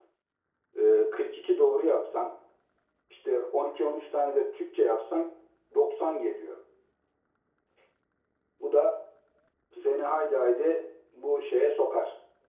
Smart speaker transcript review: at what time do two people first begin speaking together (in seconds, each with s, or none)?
none